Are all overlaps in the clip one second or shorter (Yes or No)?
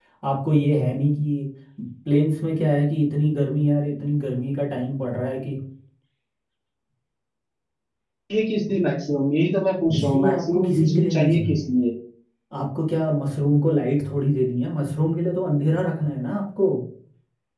No